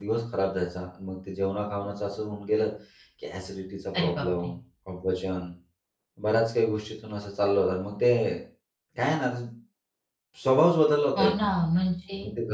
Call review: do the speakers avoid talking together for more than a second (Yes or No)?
Yes